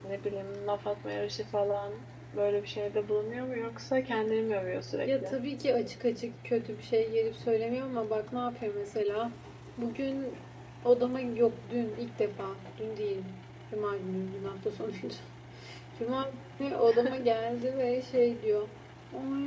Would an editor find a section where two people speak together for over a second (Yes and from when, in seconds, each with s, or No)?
No